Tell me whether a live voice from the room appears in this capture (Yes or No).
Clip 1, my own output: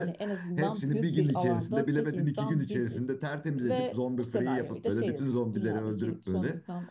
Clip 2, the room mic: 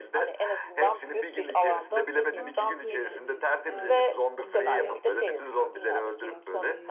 Yes